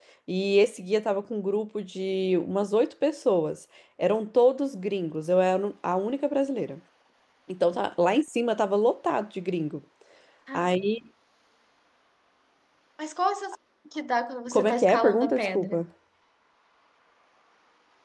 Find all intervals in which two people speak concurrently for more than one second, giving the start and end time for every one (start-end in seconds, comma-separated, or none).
14.5-15.8